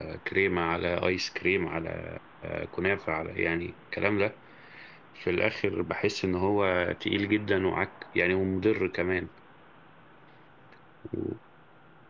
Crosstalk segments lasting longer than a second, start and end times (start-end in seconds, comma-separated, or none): none